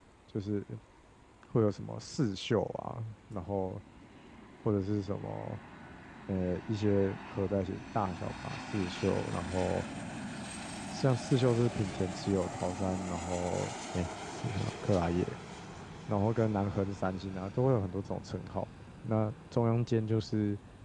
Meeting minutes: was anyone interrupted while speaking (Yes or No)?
No